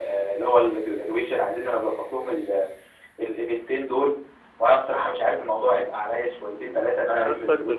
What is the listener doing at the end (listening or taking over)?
taking over